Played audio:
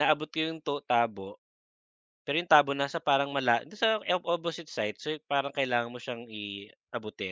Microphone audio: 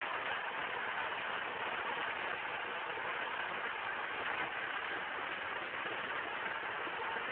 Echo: none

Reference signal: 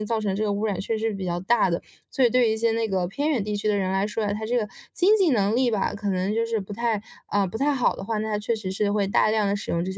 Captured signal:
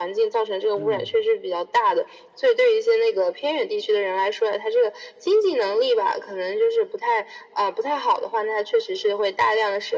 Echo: present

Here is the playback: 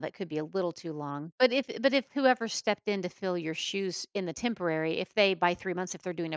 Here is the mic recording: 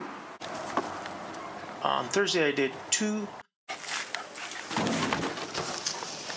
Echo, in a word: none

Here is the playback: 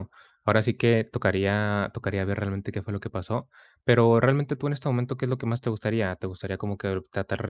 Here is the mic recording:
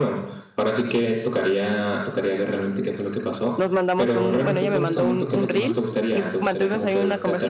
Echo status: present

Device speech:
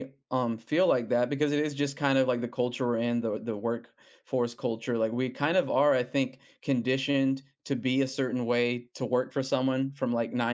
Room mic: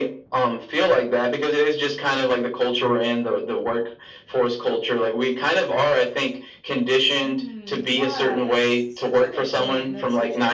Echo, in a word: present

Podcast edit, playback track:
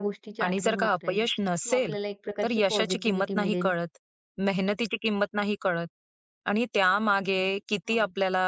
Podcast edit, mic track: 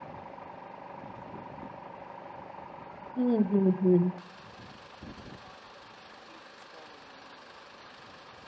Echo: none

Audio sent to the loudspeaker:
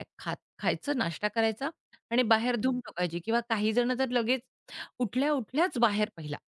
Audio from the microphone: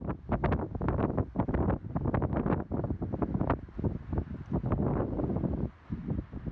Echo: none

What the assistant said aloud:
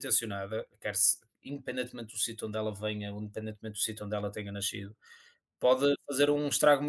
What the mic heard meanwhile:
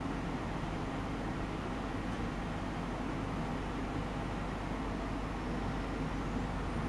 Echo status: none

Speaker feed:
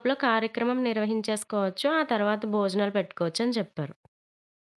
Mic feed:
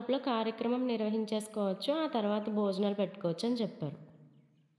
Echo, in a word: present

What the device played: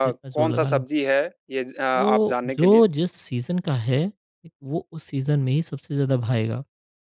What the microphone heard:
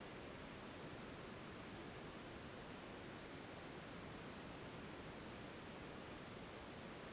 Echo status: none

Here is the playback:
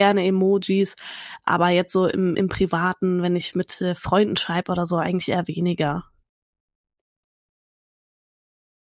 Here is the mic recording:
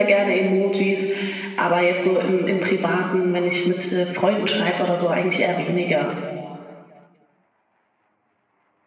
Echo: present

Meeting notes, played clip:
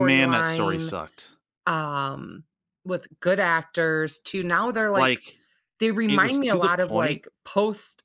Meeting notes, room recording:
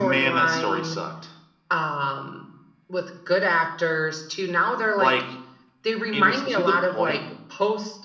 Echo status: present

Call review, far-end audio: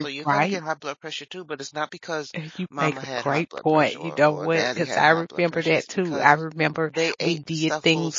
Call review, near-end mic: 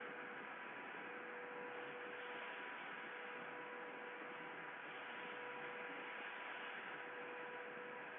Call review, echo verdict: none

